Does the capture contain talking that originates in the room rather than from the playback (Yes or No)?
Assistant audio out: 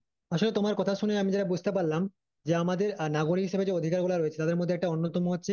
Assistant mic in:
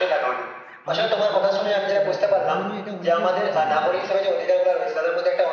Yes